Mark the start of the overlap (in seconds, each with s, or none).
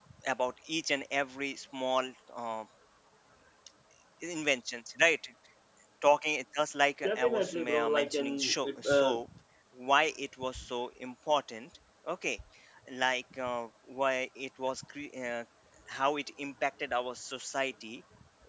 7.0 s